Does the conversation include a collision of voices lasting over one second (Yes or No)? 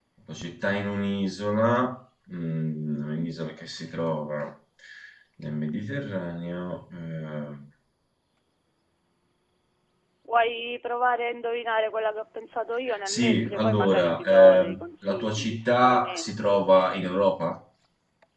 Yes